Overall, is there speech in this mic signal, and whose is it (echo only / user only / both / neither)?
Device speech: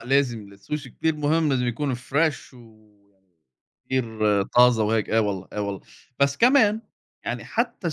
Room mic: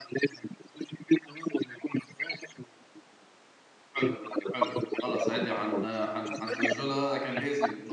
both